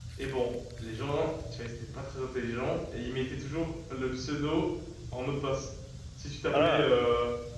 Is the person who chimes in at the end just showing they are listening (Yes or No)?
Yes